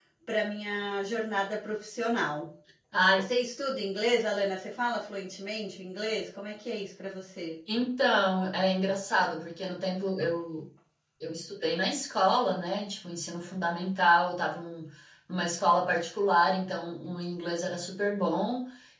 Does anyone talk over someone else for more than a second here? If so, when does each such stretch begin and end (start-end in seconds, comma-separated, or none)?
none